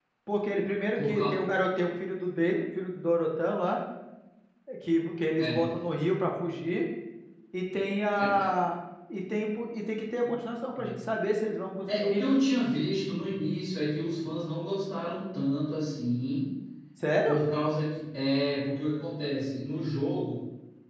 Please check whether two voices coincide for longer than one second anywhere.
No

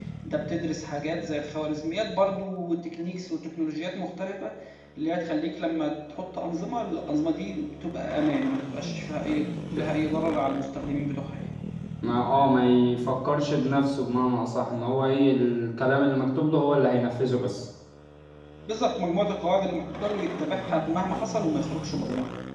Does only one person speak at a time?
Yes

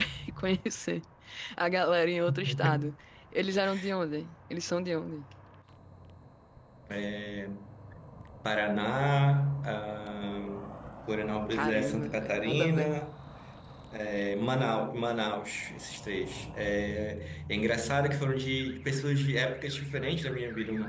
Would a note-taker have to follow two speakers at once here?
Yes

